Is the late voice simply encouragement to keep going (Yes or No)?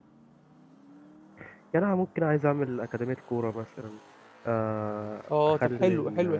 No